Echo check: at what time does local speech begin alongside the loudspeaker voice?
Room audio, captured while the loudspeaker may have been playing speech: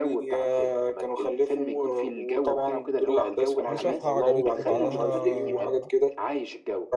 3.7 s

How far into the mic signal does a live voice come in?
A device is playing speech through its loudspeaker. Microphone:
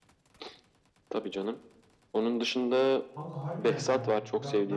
3.1 s

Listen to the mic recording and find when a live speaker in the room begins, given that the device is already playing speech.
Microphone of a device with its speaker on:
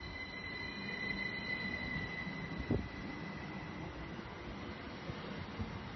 none

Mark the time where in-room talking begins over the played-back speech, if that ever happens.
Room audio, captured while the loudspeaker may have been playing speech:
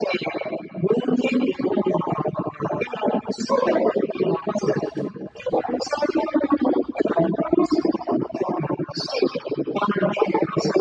none

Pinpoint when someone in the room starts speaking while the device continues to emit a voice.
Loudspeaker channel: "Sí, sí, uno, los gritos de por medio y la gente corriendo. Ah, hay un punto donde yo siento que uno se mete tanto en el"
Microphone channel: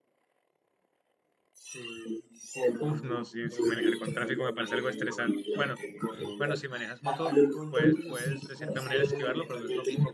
2.8 s

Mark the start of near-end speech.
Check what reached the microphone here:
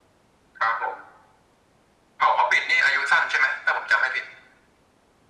none

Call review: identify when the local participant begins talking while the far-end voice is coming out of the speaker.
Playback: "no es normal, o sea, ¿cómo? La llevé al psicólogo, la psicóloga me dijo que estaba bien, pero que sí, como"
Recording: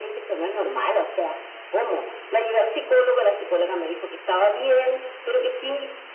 none

